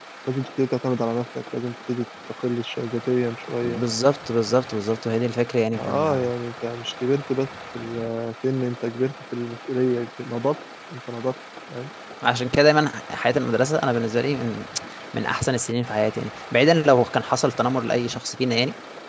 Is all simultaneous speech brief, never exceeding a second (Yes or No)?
Yes